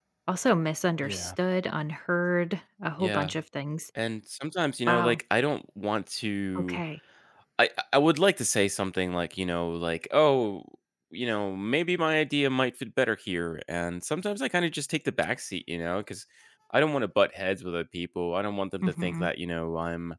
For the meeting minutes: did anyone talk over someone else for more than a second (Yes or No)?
No